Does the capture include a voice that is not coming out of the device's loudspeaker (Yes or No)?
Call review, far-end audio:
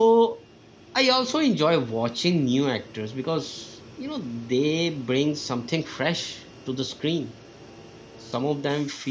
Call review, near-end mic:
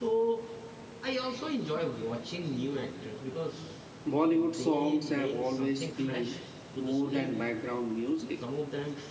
Yes